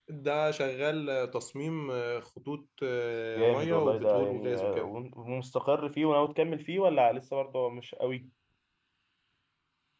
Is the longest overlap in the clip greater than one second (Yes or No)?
Yes